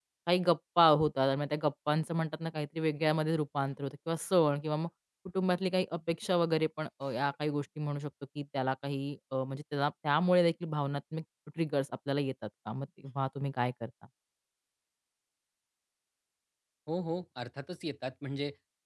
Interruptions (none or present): none